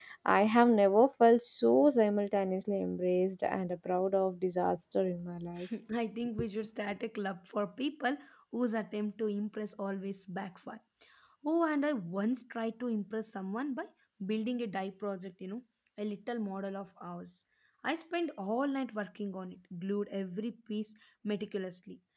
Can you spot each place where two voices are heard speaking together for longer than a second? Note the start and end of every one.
none

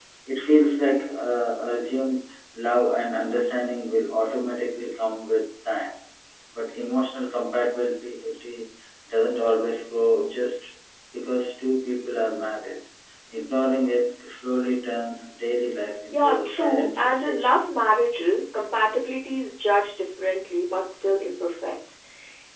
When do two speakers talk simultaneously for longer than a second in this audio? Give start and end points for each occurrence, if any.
16.1-17.6

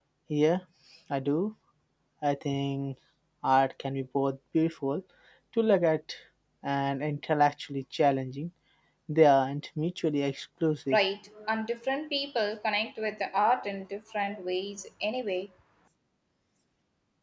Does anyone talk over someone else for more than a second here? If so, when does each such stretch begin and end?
none

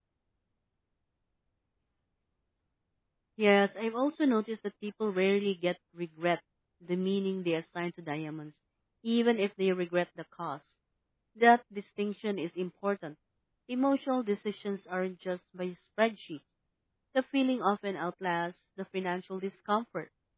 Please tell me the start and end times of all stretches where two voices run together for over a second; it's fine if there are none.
none

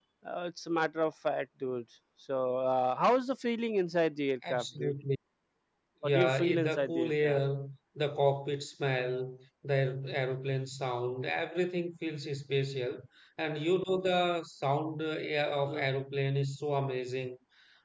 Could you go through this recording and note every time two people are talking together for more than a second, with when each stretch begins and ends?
6.0-7.4

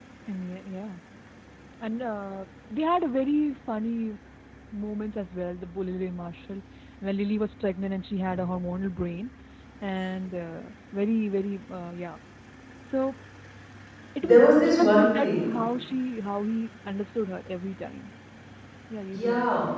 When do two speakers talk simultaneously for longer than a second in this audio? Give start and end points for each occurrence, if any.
14.2-15.5

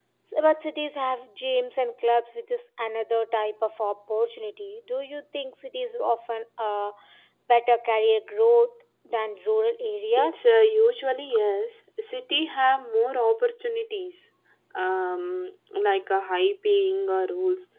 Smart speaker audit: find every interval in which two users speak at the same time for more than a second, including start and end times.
none

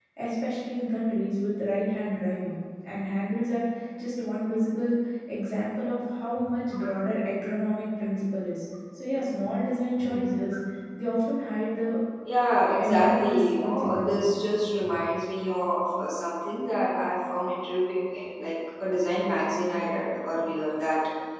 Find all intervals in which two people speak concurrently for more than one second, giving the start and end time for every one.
12.8-14.3

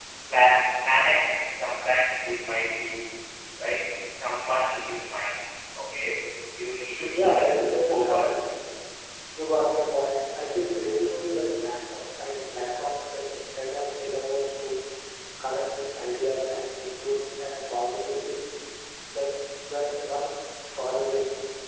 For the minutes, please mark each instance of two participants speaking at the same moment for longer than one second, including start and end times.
7.1-8.5

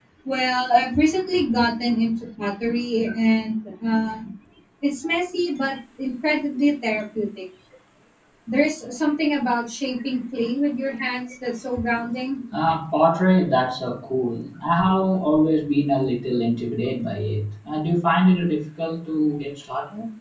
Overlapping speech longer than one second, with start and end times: none

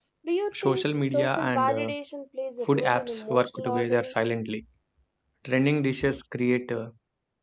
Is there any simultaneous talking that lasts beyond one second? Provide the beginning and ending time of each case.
0.6-1.9, 2.7-4.1

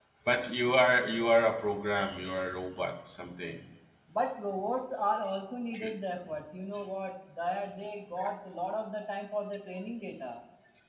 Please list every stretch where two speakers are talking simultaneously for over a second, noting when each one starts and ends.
none

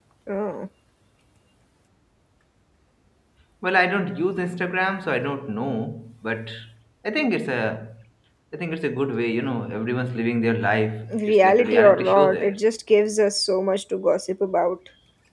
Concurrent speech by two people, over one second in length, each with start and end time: 11.1-12.6

